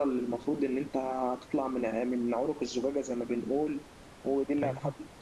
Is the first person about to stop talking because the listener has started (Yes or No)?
No